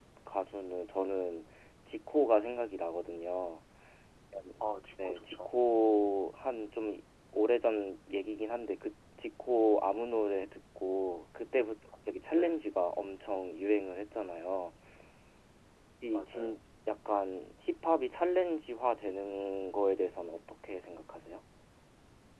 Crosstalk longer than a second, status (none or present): none